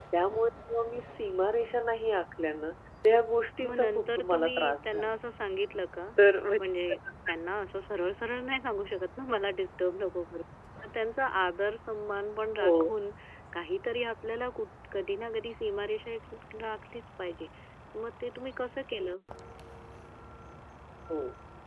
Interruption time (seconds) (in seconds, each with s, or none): 3.6 s